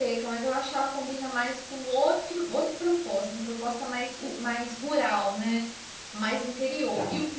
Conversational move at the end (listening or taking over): listening